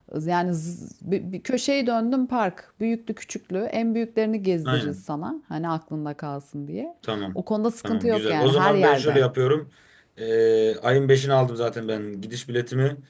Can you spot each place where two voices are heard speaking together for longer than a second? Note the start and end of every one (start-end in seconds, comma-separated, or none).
7.8-9.2